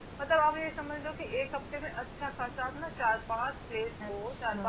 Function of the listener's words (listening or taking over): listening